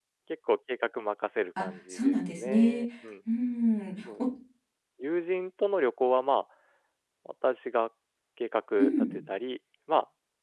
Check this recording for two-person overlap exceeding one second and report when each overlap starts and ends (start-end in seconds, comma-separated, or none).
1.6-2.8